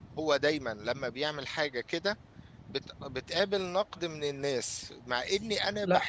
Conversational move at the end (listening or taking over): listening